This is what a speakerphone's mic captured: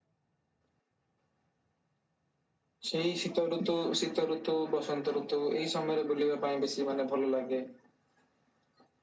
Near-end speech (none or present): none